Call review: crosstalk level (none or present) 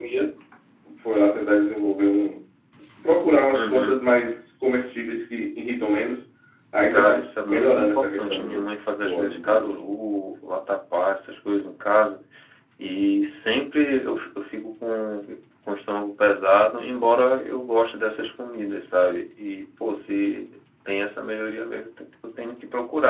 present